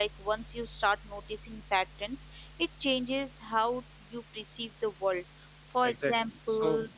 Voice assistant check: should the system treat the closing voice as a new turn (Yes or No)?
Yes